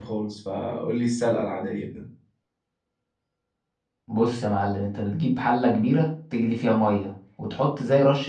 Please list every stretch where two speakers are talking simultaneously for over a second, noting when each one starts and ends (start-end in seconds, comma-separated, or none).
none